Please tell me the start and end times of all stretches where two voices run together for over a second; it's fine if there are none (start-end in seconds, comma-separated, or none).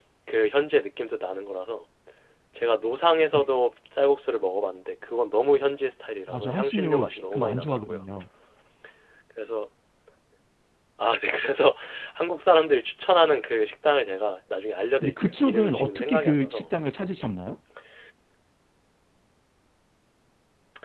6.3-8.0, 15.0-16.6